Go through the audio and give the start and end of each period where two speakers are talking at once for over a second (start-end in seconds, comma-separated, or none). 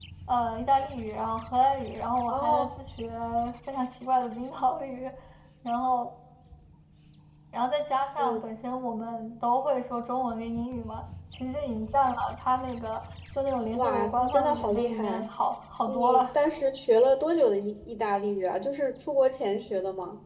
13.7-15.2